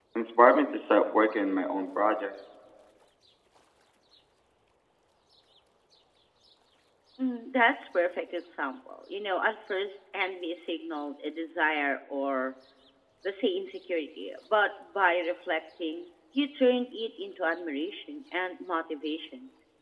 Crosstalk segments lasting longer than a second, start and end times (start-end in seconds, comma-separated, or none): none